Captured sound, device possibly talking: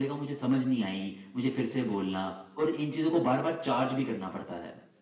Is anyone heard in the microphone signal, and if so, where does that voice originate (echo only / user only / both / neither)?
echo only